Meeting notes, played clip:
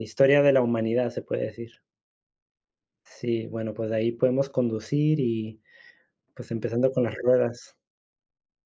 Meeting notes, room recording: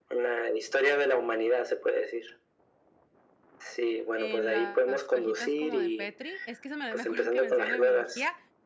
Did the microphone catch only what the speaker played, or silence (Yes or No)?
No